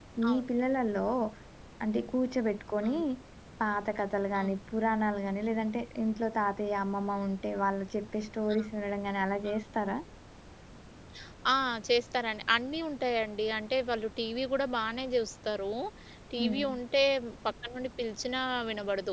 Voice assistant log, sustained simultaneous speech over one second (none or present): none